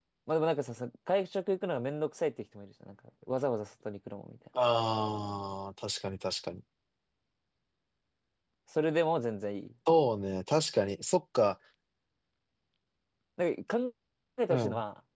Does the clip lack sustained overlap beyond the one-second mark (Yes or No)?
Yes